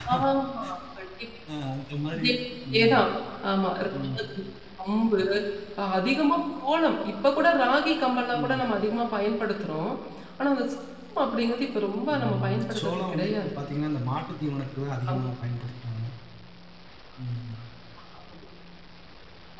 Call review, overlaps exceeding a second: present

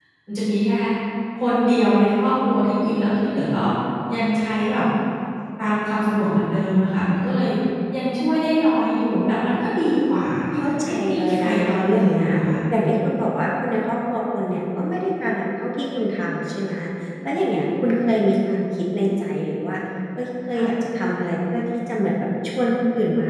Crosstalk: present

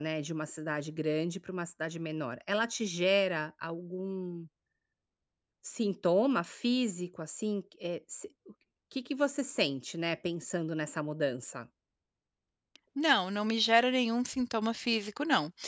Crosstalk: none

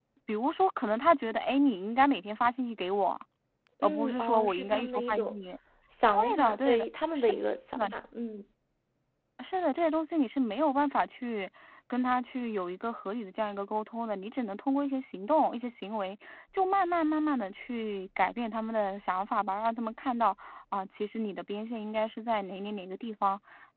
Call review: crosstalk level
present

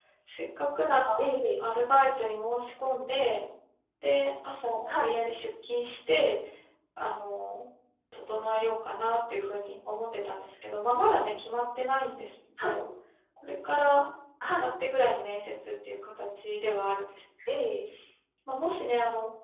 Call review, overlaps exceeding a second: none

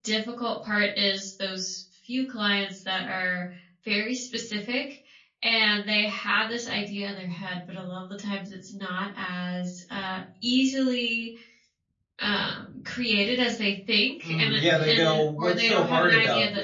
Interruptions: present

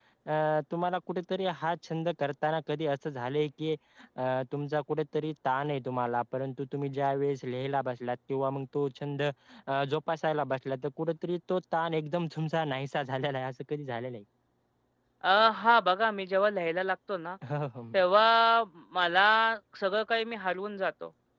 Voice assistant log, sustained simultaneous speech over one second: none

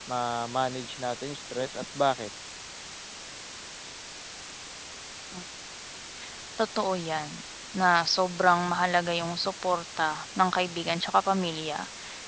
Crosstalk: none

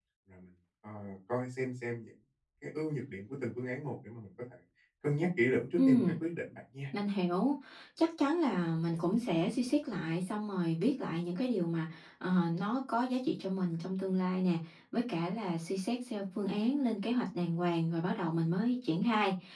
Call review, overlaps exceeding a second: none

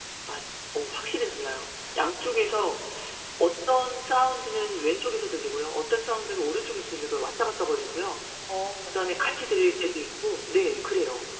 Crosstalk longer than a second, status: none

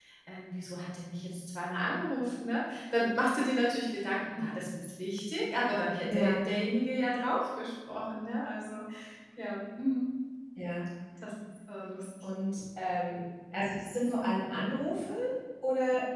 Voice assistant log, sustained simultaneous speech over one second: none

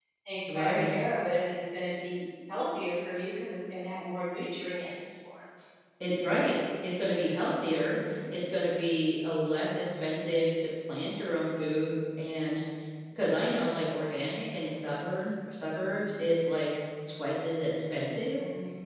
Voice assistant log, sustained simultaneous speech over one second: none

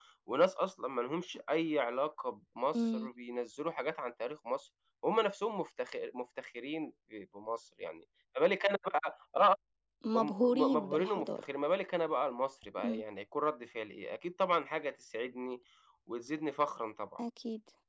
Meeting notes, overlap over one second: present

